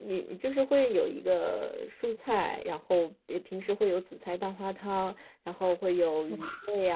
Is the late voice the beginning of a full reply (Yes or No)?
No